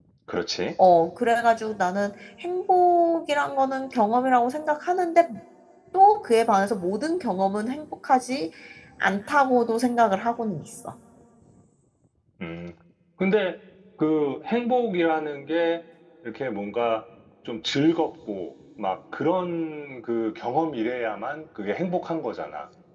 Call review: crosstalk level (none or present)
none